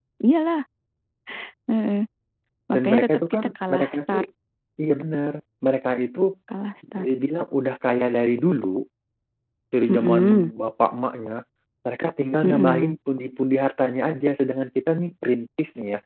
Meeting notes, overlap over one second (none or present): present